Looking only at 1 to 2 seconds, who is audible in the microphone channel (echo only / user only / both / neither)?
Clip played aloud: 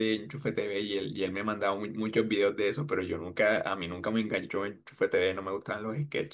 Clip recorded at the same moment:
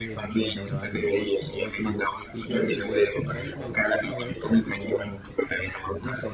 both